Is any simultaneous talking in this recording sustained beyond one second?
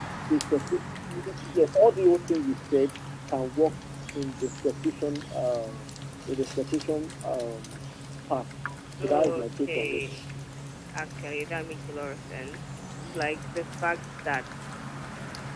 Yes, from 9.0 s

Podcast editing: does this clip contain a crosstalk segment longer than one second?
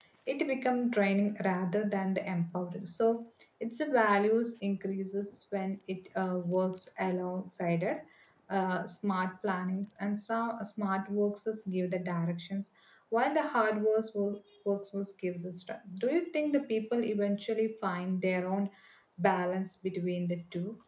No

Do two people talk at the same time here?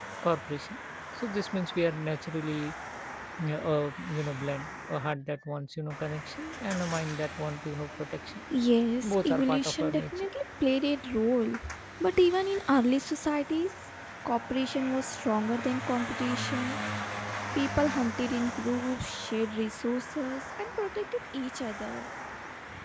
Yes, from 9.0 s

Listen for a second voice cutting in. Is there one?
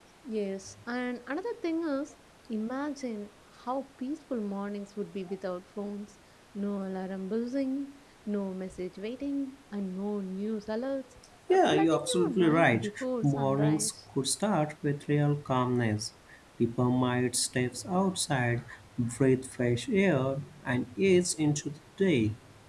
Yes, from 11.5 s

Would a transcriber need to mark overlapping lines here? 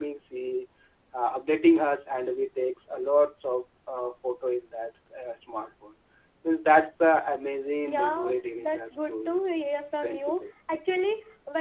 Yes, from 7.8 s

